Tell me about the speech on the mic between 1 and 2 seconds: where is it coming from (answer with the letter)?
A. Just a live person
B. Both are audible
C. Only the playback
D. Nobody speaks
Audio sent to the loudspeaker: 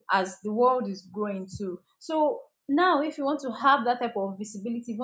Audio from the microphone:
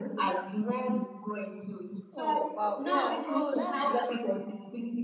C